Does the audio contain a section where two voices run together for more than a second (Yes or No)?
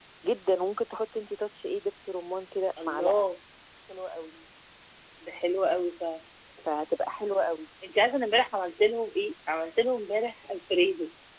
No